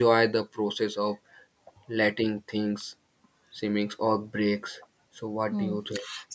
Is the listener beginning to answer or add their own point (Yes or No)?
Yes